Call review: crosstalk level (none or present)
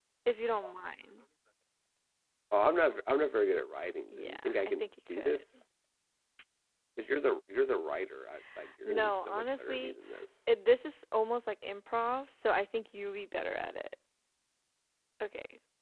present